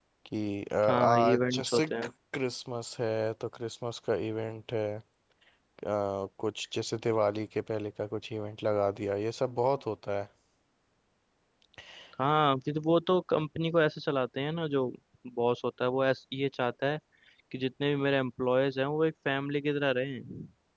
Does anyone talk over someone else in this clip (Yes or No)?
Yes